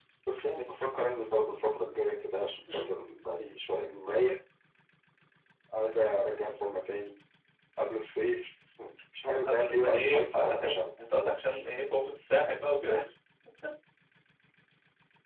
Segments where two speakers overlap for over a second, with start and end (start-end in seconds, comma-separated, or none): 9.5-10.8